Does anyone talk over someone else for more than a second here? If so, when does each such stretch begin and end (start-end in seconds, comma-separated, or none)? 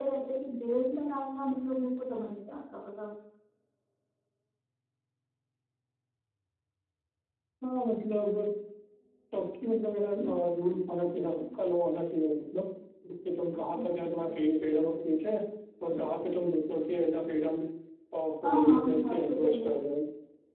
18.4-19.7